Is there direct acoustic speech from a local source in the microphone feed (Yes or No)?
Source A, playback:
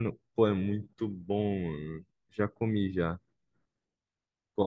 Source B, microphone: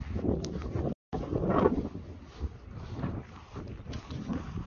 No